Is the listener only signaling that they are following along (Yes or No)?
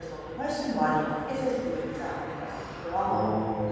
No